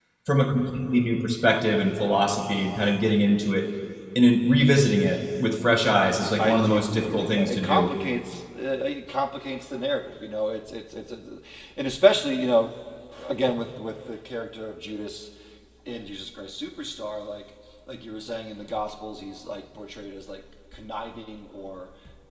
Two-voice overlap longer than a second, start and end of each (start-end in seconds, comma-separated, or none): 6.4-7.9